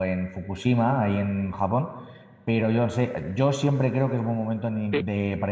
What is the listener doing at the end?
listening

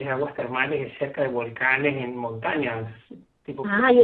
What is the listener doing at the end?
taking over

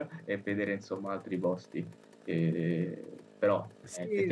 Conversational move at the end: taking over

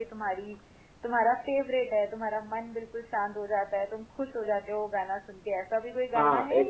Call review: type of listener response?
taking over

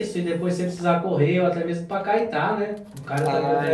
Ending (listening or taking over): taking over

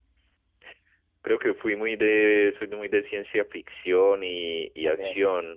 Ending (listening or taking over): listening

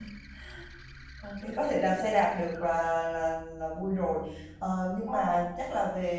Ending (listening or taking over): listening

